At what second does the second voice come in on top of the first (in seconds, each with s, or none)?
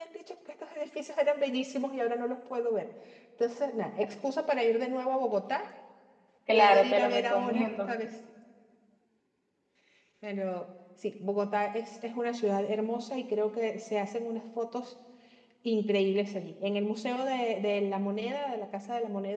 6.5 s